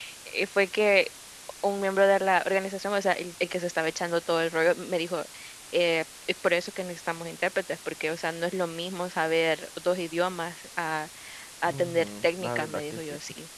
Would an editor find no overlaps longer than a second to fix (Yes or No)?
No